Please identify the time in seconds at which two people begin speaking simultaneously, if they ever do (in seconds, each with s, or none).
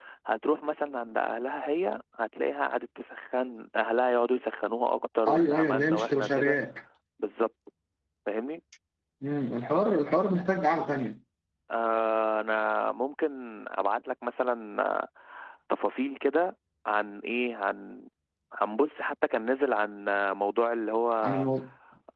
5.2 s